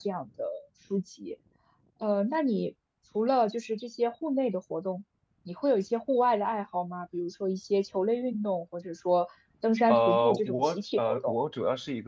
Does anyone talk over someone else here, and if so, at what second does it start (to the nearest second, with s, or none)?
10 s